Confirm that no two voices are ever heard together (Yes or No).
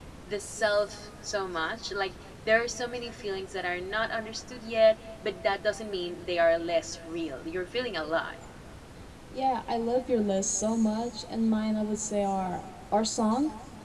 Yes